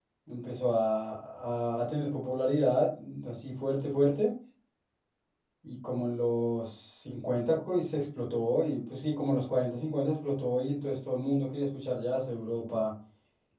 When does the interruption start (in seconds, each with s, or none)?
none